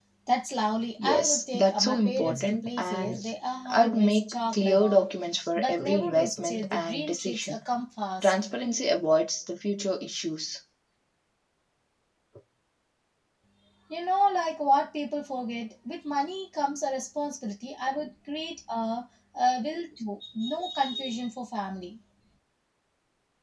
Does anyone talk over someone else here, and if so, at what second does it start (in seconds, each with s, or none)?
1.0 s